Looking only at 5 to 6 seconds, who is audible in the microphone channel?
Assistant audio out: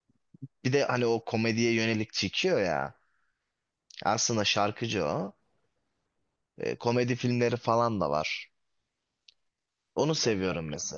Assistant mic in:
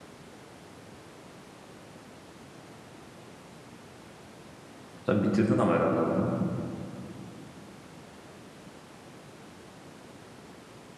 user only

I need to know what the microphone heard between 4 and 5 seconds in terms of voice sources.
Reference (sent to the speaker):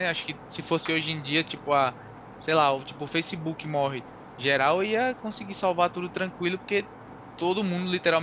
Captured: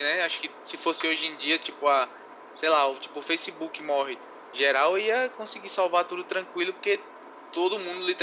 echo only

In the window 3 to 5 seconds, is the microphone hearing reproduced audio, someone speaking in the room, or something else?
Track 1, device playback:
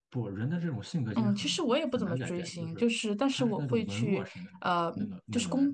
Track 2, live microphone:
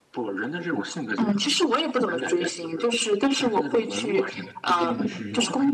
both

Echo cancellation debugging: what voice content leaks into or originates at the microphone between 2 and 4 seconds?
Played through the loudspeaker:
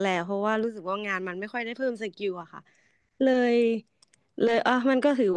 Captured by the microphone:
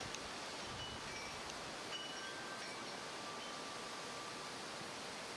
neither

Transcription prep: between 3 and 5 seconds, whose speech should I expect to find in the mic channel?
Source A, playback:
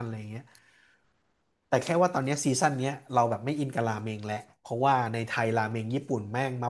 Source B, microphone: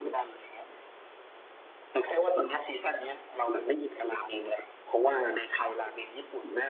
echo only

